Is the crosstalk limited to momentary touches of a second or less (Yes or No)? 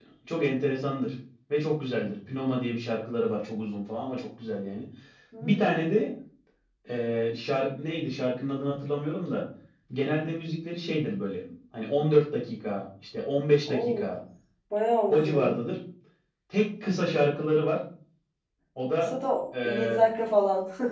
Yes